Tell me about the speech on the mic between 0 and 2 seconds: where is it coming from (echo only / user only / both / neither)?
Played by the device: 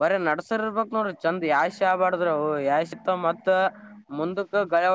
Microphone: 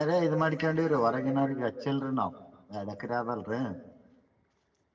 user only